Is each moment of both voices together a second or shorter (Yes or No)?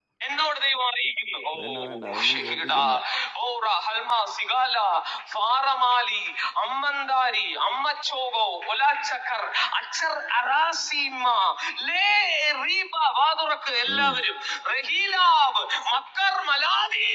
No